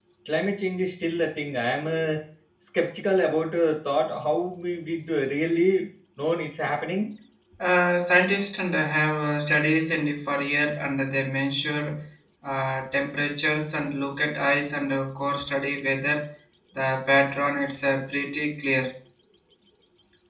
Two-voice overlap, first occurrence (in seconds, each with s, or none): none